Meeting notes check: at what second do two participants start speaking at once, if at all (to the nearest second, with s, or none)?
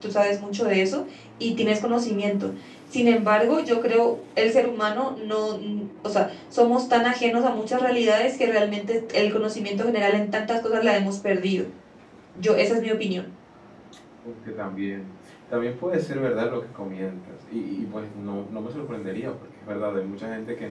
none